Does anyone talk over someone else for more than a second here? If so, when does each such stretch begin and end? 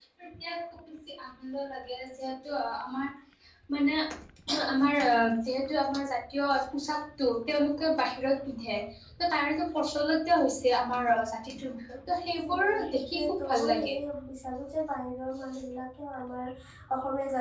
12.4-14.0

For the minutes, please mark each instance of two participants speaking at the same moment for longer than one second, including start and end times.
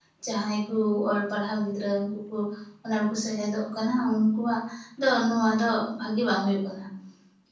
none

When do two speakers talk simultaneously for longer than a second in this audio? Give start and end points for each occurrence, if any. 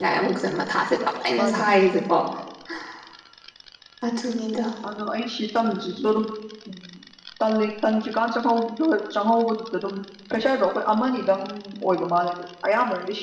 none

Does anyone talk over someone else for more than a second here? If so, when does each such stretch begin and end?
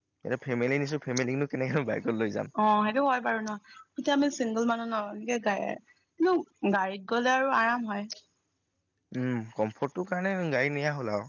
none

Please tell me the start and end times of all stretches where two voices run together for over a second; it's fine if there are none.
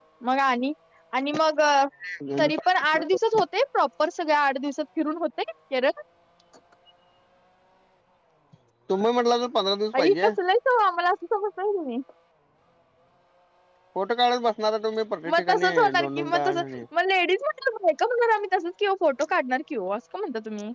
15.3-16.8

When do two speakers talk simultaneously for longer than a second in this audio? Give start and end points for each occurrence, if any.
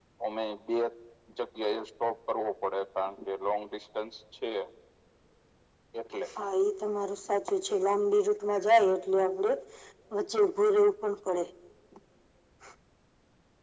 none

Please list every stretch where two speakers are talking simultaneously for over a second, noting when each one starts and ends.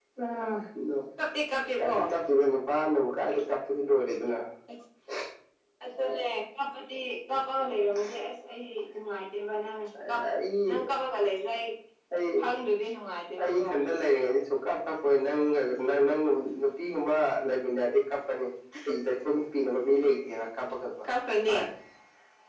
none

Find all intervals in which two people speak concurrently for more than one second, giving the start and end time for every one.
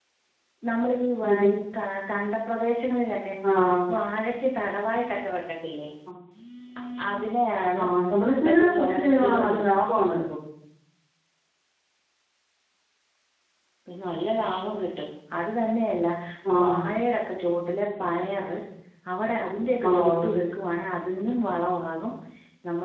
8.4-9.8

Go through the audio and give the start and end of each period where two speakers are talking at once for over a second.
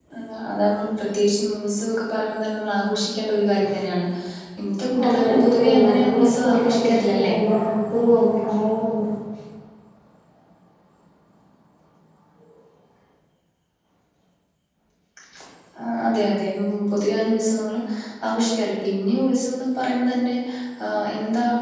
5.0-7.3

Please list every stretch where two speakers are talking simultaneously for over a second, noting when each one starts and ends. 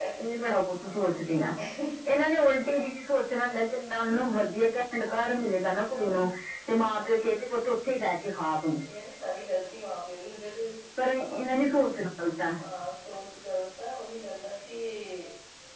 none

